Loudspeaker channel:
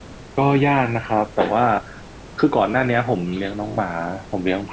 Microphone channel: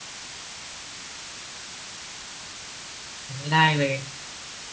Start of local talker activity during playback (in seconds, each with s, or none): 3.4 s